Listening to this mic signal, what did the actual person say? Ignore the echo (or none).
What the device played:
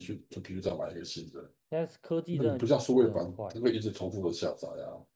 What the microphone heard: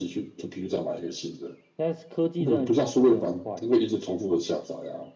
none